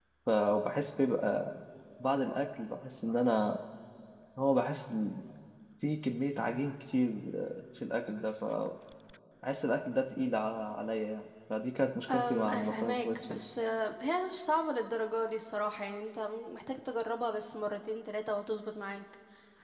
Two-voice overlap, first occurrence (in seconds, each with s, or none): 12.1 s